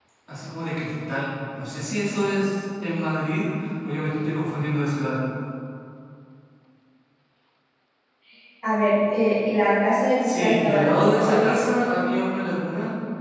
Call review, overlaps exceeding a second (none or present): present